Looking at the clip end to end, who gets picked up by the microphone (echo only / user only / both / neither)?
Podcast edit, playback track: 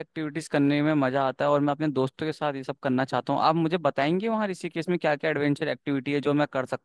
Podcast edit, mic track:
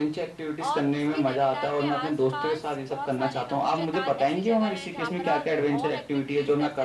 both